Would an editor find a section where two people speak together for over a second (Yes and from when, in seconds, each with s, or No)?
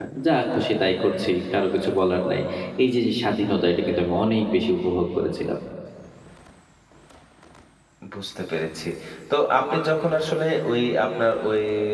No